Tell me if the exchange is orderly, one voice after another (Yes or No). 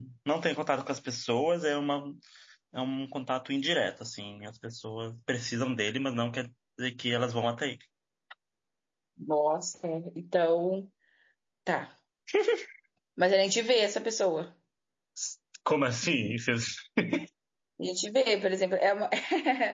Yes